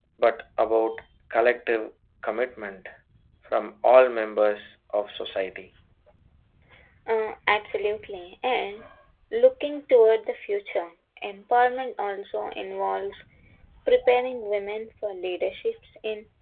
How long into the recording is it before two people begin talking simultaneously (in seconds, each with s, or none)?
none